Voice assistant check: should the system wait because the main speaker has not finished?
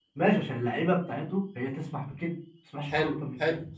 No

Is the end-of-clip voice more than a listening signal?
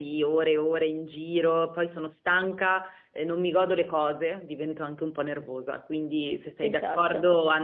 No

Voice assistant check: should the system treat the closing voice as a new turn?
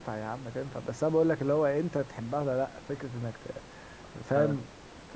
No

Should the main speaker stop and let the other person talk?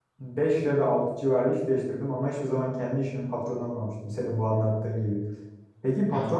No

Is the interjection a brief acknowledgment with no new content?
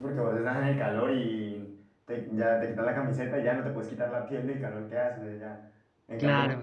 Yes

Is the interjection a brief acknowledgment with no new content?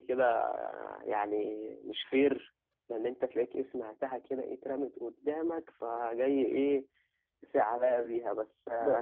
No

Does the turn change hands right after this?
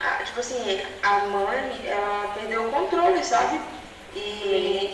No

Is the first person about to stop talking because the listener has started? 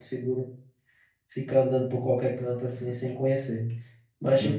No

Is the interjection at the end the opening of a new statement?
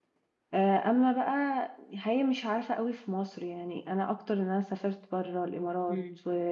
No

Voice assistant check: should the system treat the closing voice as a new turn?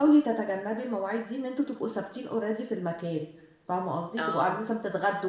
No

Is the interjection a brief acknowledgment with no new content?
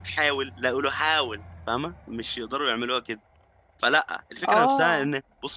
Yes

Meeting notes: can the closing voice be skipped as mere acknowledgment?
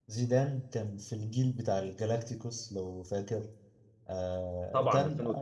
Yes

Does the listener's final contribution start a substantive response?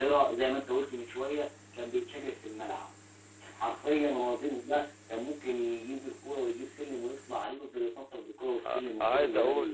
Yes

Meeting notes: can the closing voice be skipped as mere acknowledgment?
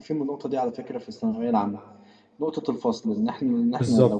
Yes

